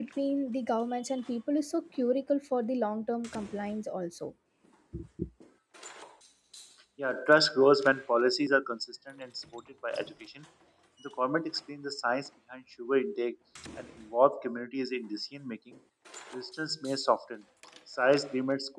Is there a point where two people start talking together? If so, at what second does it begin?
none

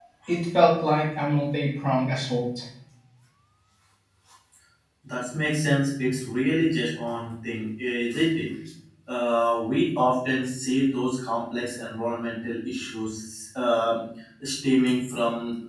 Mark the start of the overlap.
none

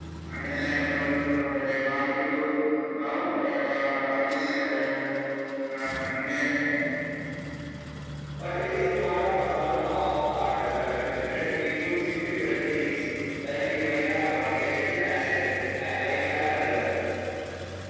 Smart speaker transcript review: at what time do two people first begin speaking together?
none

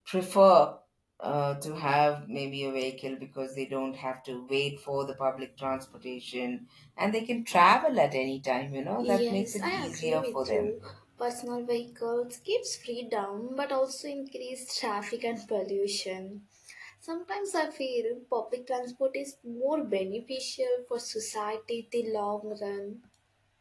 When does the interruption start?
9.0 s

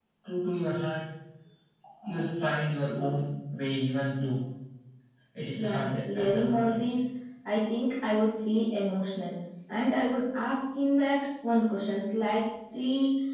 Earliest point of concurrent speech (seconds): 5.5 s

